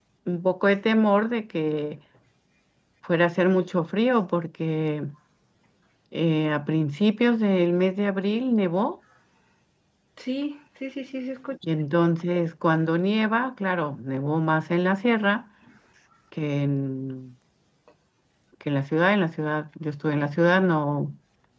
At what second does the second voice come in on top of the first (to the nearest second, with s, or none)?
none